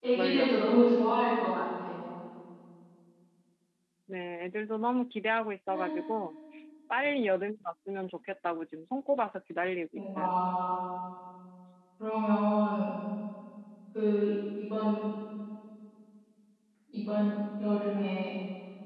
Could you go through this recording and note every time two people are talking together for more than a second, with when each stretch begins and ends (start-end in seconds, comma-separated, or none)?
none